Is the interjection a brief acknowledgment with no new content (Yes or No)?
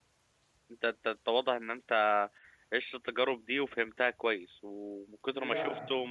Yes